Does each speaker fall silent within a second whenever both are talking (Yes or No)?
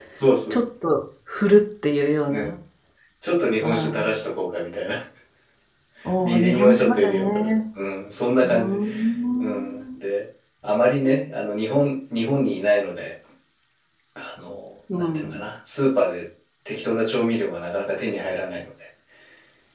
No